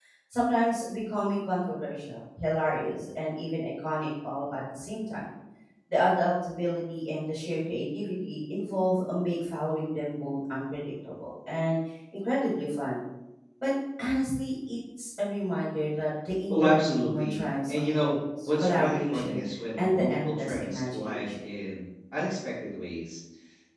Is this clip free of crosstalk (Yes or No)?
No